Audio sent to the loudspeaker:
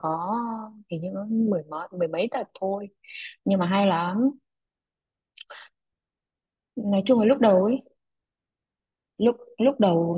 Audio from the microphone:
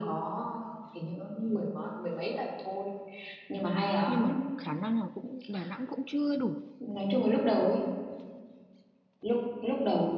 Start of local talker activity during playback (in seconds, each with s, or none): 4.0 s